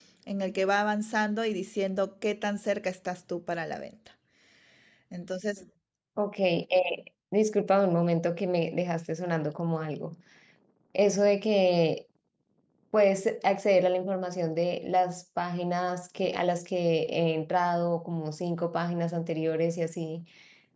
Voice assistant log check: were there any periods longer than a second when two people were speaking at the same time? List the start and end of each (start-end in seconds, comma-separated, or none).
none